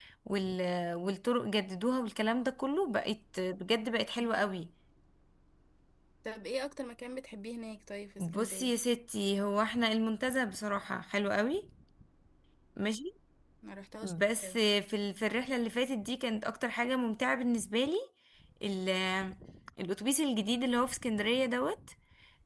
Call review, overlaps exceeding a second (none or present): none